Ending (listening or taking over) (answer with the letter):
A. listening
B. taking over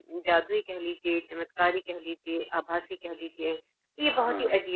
A